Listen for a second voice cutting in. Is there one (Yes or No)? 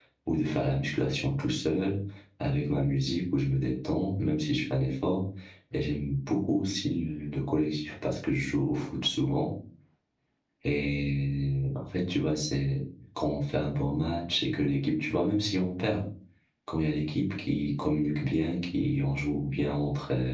No